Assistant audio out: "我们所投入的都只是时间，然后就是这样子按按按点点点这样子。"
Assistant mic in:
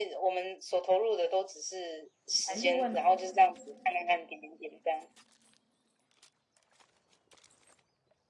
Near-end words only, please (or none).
才六万